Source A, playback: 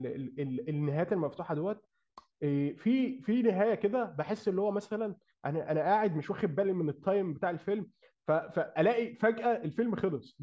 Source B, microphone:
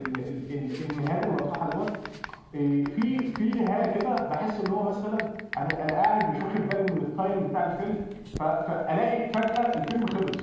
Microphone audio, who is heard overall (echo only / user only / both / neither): echo only